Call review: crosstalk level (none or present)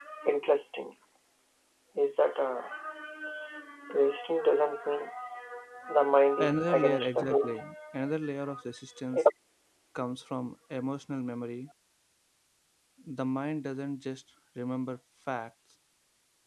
present